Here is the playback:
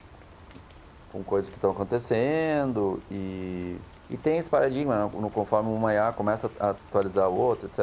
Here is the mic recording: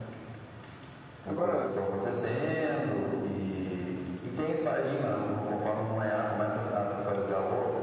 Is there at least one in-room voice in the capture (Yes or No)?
Yes